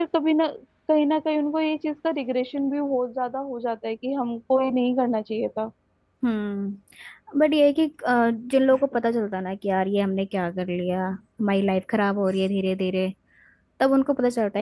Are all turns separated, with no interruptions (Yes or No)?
Yes